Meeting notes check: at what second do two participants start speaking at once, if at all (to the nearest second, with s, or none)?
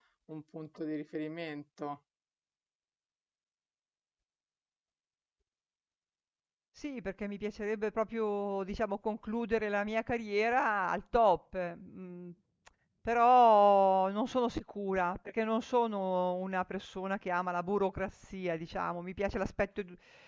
none